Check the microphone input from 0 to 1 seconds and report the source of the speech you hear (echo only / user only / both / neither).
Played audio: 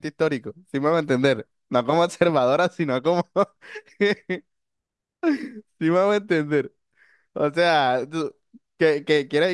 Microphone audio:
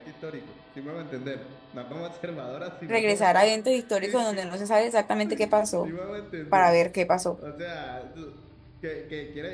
echo only